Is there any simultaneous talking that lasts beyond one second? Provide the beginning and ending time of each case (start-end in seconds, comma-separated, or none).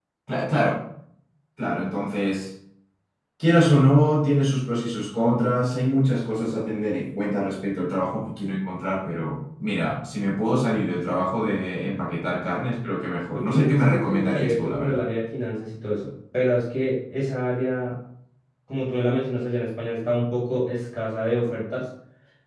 13.3-15.0